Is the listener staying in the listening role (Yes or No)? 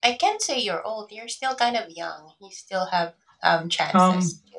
No